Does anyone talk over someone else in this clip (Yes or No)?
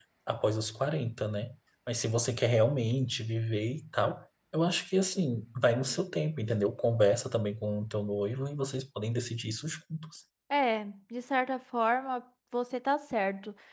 No